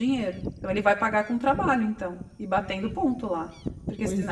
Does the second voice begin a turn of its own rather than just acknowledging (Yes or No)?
Yes